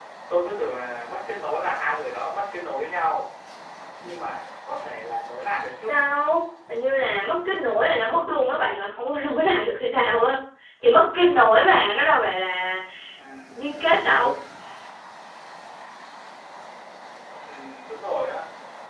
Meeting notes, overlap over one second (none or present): none